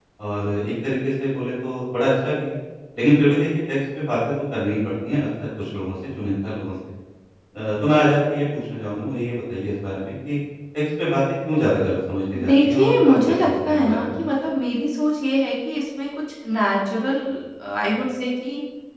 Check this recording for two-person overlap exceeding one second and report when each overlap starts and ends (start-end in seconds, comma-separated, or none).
12.3-14.1